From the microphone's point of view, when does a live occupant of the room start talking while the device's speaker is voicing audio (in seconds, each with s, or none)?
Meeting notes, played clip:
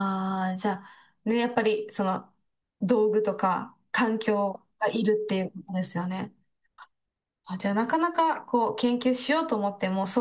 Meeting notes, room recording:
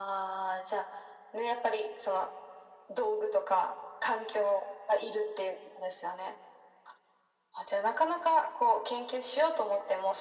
none